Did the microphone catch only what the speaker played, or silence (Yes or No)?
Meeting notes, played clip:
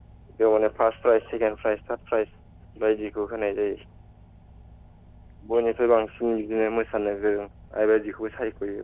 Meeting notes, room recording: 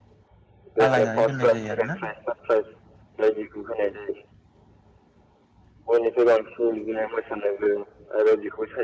No